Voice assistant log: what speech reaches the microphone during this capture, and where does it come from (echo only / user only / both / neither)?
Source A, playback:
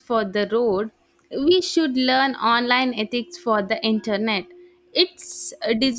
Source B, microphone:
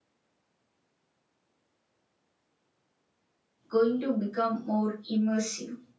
user only